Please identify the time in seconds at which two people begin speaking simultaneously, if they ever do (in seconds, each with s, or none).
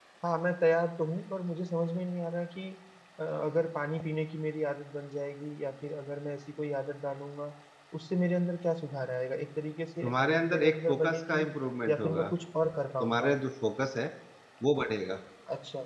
10.0 s